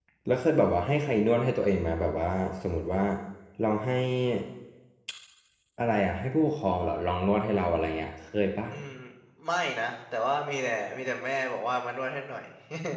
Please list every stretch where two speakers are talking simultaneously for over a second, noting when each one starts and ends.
none

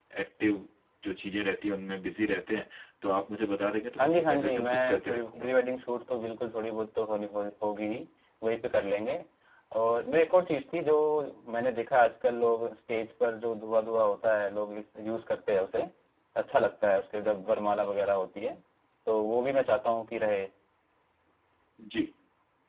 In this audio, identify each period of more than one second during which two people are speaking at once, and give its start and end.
4.0-5.5

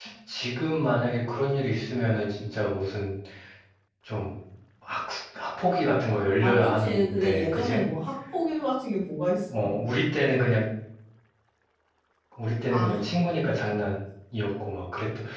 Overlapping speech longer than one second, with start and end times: 6.4-7.8

